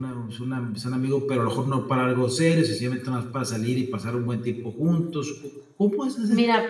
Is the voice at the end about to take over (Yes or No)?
Yes